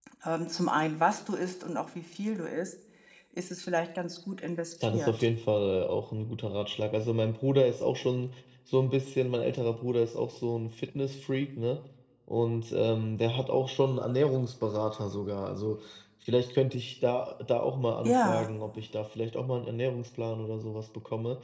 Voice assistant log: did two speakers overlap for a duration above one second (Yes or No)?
No